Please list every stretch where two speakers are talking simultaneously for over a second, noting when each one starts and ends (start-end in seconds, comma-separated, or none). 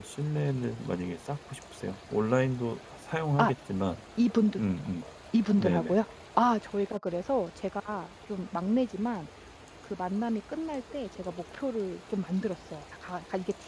none